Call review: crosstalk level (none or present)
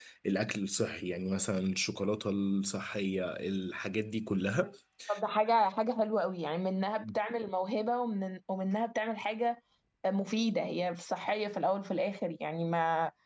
none